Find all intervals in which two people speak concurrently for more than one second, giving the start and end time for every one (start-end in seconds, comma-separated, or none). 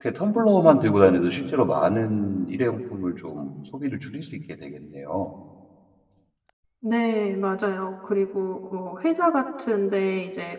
none